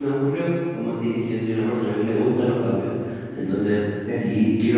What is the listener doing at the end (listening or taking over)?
listening